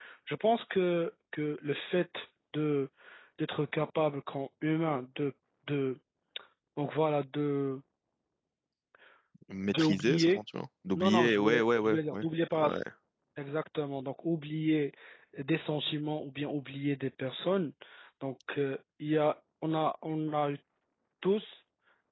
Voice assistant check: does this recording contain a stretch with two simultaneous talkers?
Yes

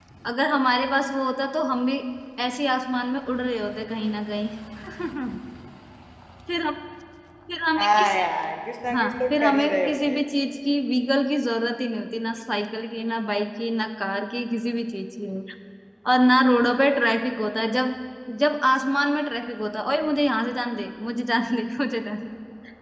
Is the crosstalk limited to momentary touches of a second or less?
No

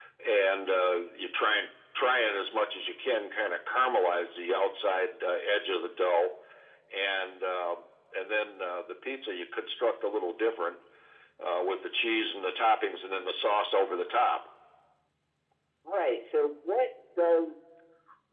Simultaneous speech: No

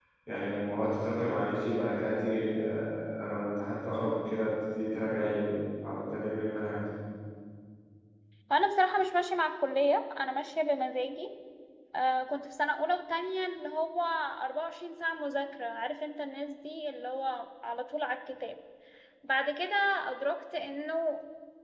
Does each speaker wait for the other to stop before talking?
Yes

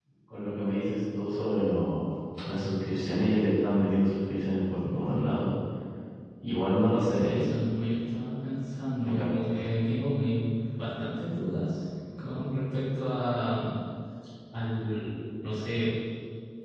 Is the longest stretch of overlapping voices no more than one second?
Yes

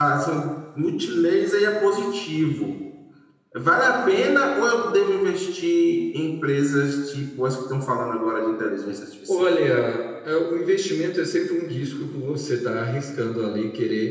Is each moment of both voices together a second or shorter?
Yes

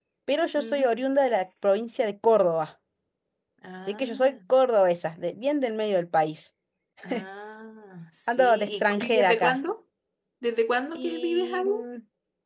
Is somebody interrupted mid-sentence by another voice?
Yes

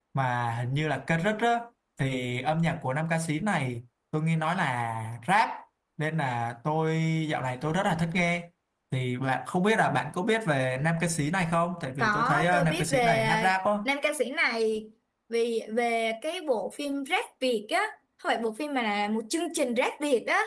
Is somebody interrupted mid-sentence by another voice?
Yes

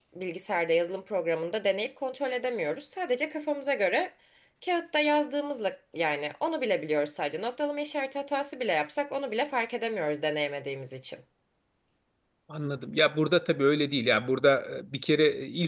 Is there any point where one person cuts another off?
No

